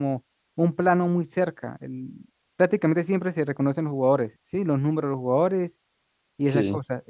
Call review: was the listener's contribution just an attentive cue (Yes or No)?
Yes